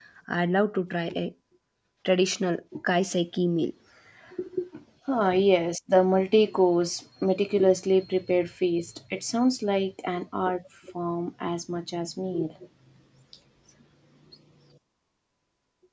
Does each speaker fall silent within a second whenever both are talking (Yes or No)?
Yes